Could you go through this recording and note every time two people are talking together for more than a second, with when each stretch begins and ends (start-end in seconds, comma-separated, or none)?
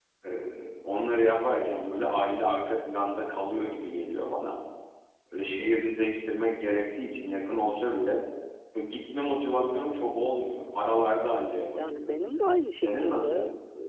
11.7-13.3